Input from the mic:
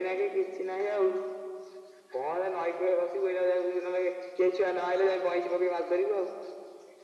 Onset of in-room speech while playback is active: none

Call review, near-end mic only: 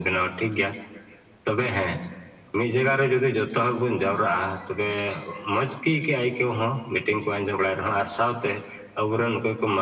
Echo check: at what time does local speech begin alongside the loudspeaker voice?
none

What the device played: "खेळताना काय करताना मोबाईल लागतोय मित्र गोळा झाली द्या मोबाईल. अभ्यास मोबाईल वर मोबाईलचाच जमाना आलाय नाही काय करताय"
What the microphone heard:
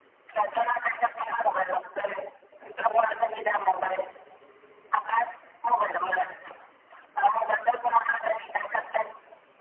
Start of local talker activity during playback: none

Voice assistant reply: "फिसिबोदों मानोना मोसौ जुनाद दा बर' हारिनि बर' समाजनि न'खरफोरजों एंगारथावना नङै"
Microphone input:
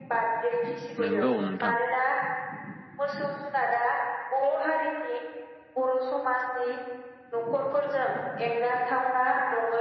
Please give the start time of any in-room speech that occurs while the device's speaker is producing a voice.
1.0 s

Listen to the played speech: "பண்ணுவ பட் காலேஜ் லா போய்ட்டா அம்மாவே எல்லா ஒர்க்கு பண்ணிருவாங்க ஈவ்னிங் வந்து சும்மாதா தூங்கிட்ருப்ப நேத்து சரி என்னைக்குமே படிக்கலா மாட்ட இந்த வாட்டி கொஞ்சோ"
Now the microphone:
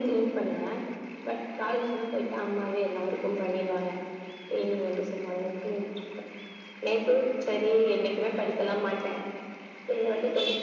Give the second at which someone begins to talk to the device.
none

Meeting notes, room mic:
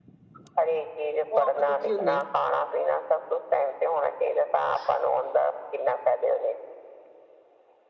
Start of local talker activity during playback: 1.2 s

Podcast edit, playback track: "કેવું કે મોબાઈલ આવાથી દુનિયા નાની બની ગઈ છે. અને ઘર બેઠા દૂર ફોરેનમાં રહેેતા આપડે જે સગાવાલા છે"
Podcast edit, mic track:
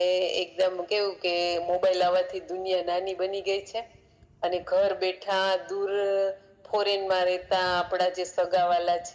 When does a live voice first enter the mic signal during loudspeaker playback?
none

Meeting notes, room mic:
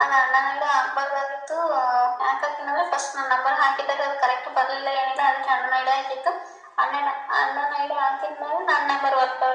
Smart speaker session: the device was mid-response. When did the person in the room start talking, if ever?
none

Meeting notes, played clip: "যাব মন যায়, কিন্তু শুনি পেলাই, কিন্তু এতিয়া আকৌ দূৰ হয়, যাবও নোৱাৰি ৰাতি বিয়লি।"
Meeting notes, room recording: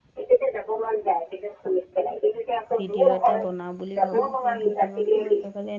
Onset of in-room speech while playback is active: 2.7 s

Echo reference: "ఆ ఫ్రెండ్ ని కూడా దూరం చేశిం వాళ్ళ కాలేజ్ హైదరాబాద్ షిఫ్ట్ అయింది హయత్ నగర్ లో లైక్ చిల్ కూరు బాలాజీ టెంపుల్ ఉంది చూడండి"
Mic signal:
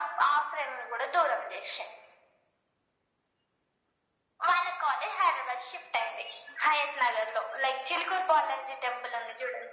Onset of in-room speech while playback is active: none

